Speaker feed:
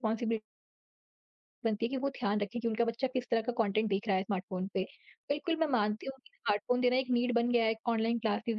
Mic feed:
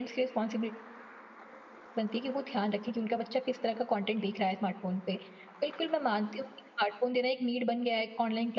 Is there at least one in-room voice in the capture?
No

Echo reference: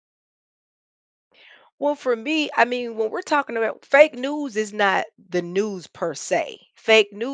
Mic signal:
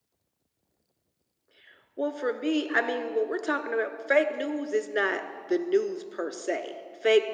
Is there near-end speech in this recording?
No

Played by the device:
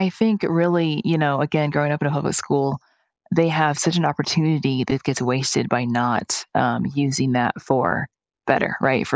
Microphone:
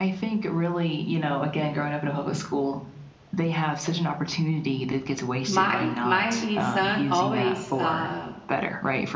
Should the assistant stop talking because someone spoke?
Yes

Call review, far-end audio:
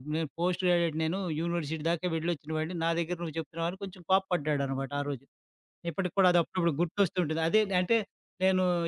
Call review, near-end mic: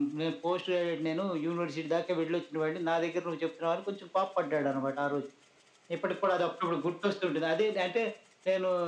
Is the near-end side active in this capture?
No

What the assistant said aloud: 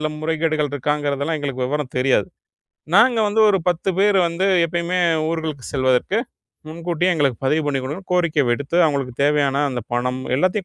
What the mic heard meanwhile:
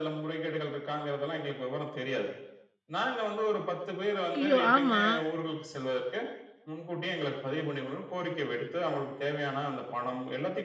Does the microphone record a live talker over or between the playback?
Yes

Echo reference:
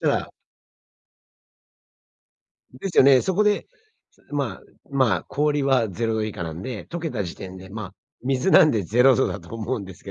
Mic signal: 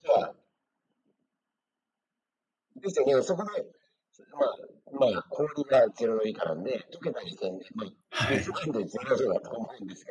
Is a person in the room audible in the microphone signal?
Yes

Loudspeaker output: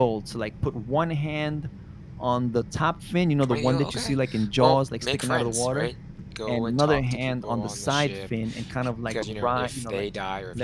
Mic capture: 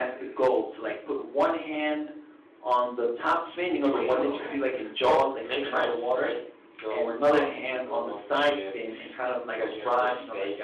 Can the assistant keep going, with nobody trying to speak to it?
Yes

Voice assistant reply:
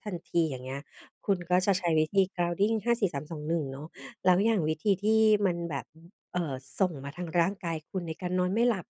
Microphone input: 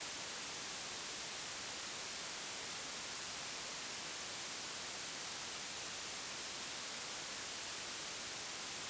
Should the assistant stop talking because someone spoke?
No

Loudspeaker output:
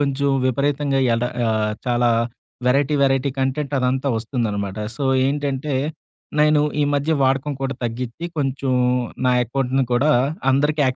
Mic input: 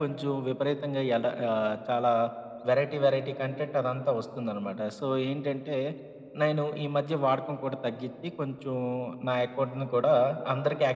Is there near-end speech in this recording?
No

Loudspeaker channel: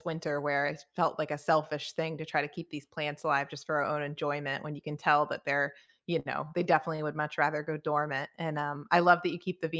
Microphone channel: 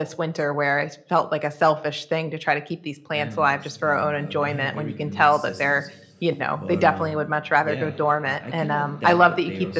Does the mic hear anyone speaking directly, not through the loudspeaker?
Yes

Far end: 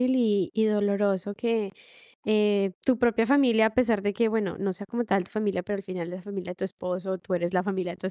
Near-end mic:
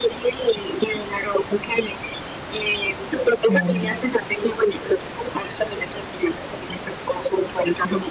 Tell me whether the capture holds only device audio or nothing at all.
No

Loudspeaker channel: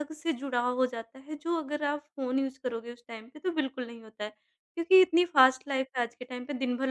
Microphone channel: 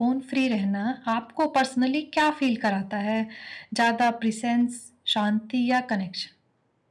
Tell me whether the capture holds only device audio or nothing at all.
No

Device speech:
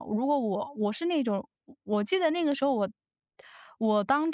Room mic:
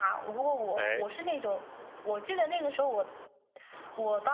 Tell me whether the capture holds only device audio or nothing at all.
No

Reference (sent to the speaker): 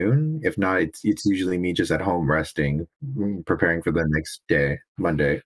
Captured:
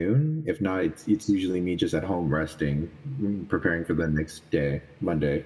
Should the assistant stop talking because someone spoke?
No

